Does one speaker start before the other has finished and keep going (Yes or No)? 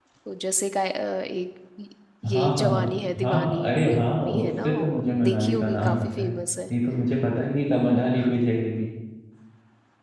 Yes